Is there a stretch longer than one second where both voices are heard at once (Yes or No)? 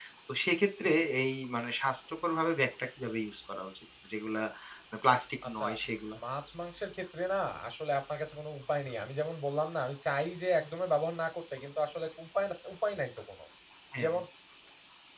No